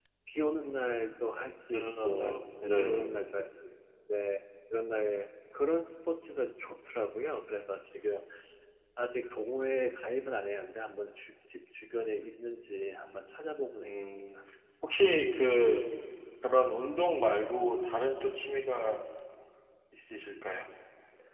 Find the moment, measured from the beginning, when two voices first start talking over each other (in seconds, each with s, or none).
1.7 s